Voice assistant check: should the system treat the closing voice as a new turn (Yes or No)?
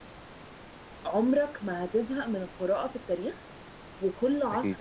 No